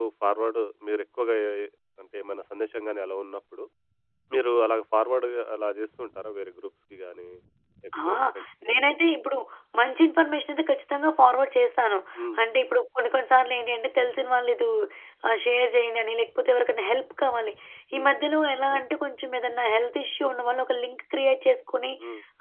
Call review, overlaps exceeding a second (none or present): none